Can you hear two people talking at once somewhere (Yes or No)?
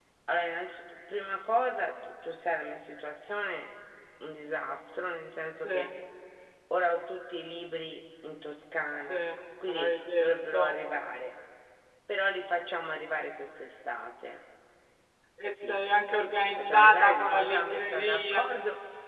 Yes